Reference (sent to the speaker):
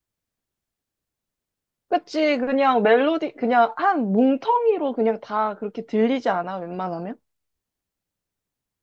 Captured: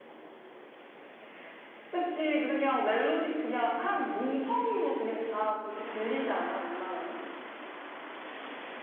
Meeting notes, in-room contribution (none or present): none